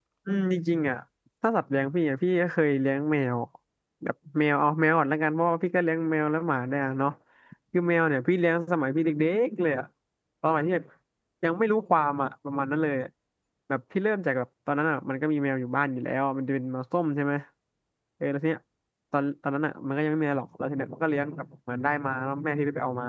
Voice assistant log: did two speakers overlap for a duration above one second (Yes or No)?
No